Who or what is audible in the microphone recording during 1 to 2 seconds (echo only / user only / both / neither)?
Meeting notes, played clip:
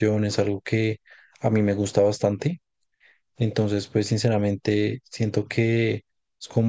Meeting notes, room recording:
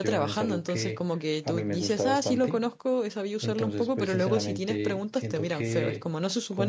both